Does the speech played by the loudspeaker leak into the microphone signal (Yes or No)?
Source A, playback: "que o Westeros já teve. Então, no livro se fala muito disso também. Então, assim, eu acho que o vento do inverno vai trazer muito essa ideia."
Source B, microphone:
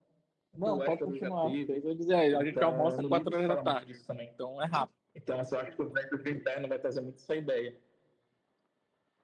Yes